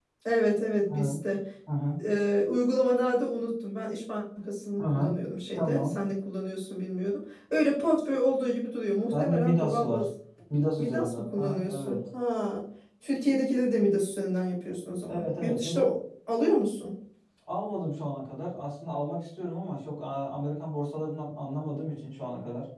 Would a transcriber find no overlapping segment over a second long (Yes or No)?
No